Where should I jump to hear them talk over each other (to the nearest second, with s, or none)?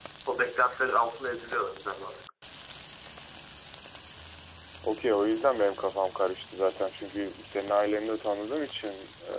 none